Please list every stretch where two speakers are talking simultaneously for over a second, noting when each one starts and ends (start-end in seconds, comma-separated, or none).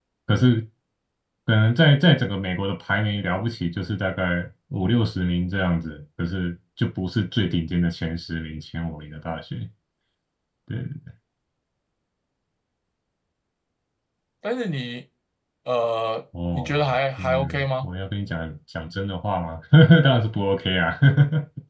16.5-17.9